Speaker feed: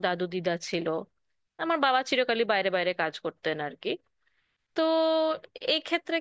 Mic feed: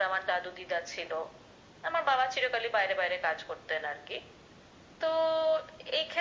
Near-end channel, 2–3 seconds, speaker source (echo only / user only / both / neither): echo only